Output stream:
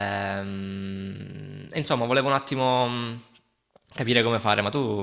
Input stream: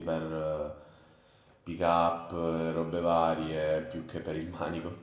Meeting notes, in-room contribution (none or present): present